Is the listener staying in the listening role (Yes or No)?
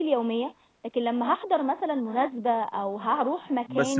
No